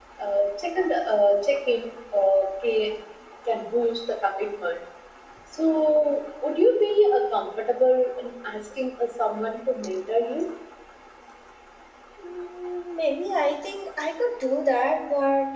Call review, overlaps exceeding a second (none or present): none